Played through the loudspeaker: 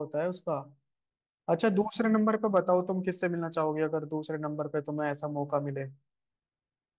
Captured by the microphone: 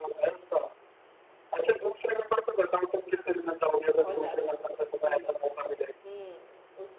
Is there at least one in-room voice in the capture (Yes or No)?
Yes